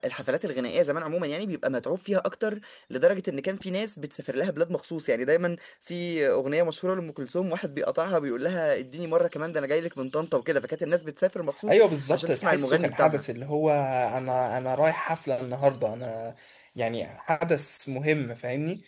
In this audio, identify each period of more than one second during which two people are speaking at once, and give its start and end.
11.7-13.2

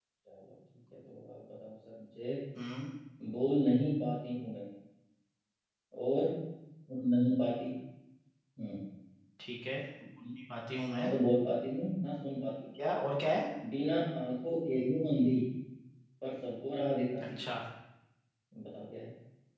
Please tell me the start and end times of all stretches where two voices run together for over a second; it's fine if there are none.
none

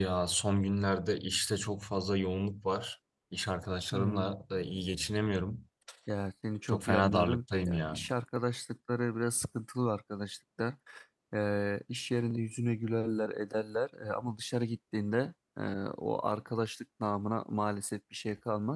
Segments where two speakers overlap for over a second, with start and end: 6.7-8.0

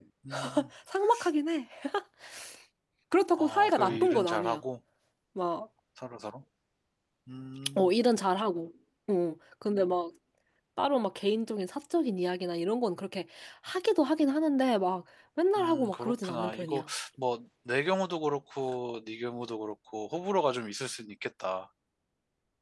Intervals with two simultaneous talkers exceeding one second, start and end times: 3.4-4.6, 15.6-16.8

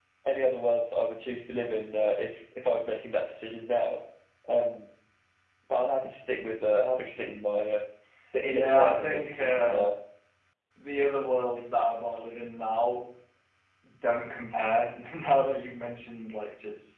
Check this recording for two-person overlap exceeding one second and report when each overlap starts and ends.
8.5-9.8

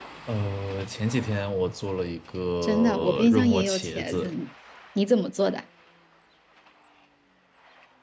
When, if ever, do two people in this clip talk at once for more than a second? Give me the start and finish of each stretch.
2.6-4.3

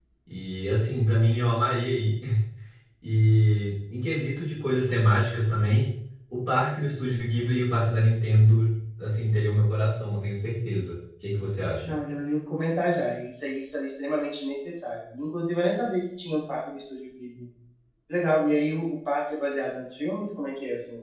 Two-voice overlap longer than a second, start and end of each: none

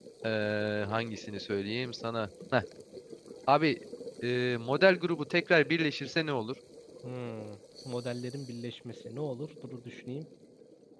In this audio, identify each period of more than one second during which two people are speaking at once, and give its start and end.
none

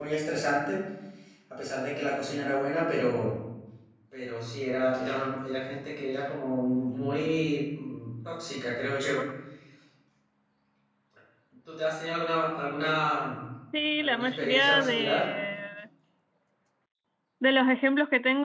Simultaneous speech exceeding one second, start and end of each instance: 14.0-15.2

